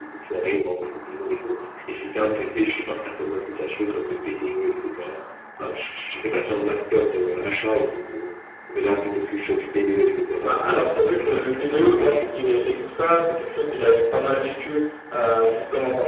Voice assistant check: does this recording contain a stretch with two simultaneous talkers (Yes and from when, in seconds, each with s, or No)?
Yes, from 10.4 s